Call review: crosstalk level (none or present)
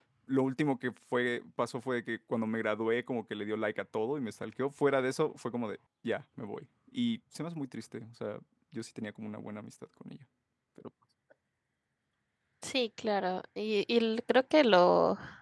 none